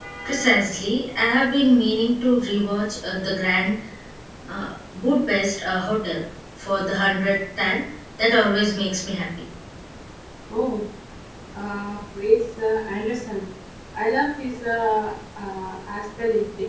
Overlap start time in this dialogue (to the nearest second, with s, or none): none